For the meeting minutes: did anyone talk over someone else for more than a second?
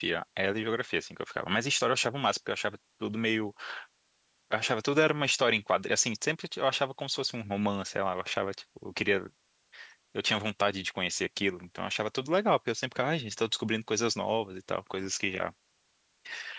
No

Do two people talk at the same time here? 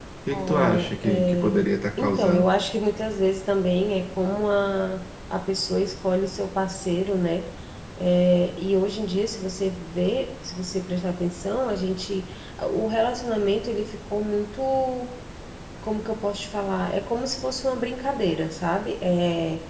Yes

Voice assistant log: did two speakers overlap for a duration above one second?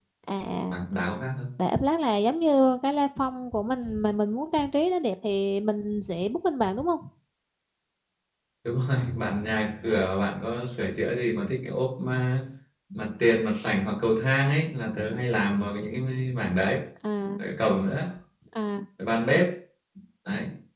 No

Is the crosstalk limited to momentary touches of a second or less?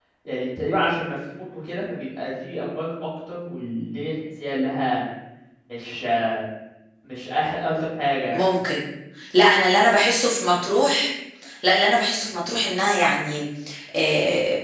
Yes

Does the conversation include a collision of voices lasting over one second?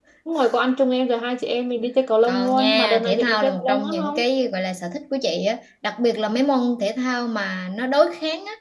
Yes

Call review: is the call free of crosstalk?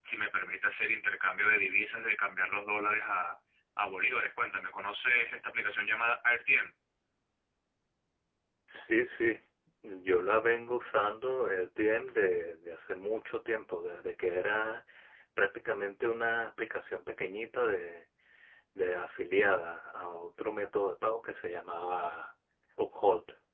Yes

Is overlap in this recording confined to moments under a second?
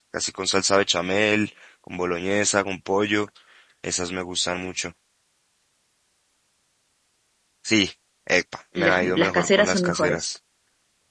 No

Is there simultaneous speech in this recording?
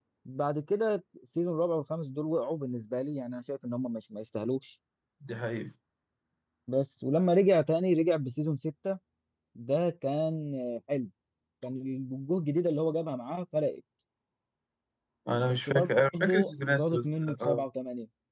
Yes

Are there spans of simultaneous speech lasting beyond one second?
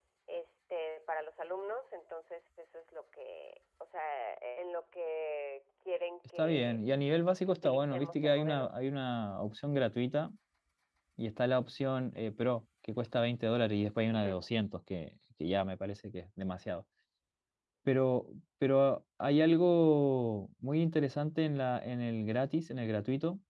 Yes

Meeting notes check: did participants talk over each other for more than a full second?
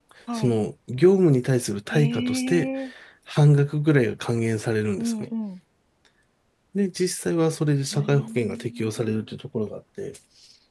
Yes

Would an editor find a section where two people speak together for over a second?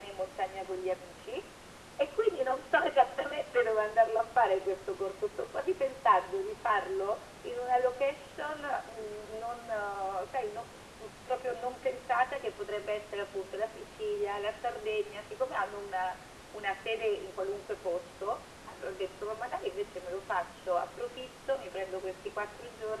No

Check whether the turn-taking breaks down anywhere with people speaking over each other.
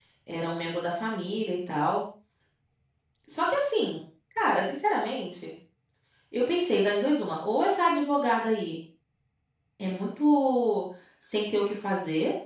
No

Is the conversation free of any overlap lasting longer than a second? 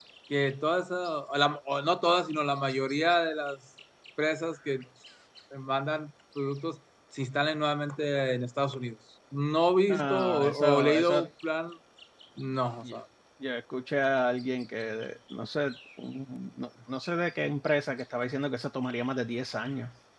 No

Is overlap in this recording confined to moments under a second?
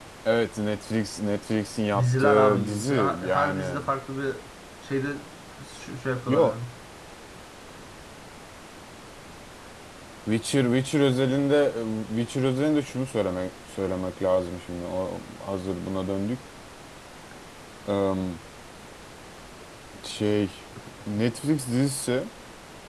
No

